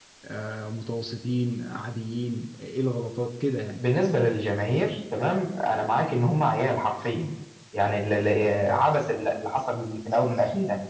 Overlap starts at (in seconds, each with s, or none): none